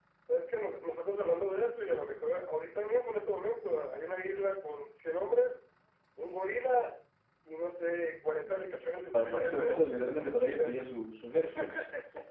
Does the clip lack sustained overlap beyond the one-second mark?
No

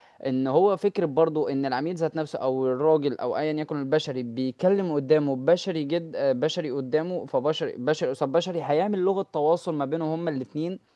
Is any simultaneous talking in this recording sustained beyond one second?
No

